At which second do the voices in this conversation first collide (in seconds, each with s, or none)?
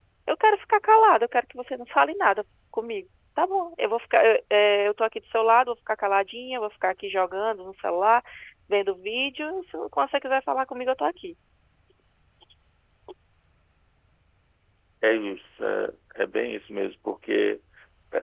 none